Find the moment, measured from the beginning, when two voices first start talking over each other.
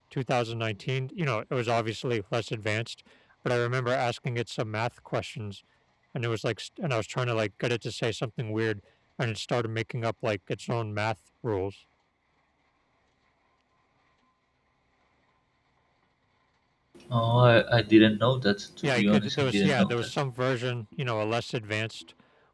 19 s

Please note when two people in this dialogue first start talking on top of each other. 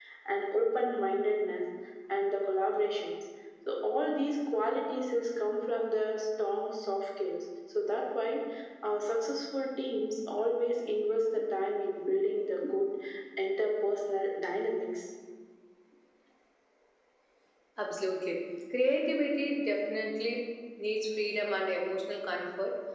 none

